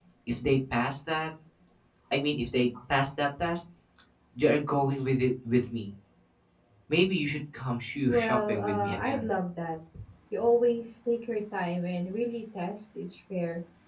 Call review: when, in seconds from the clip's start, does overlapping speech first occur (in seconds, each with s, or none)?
8.1 s